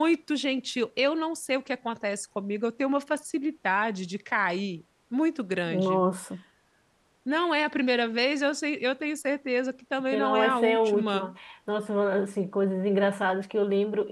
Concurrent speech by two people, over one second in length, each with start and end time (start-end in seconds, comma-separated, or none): 10.1-11.3